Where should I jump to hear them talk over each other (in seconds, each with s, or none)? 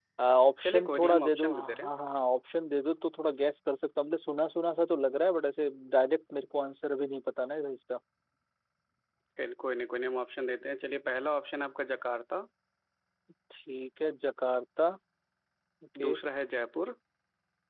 0.6 s